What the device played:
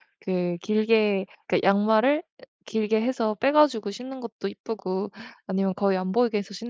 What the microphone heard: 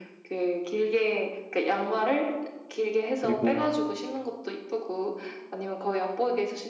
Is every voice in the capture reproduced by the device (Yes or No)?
No